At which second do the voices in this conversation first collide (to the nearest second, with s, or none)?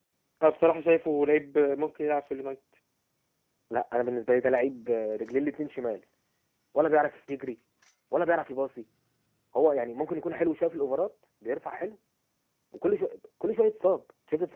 none